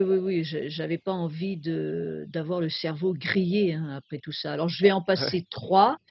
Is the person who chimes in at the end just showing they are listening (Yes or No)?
Yes